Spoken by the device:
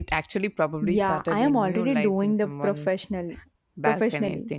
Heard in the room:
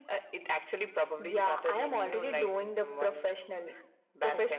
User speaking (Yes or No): No